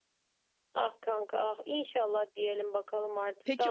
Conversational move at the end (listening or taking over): taking over